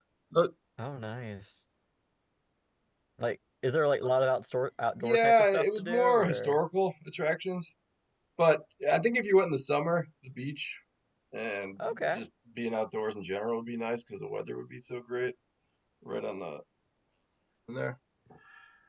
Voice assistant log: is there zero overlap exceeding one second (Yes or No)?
No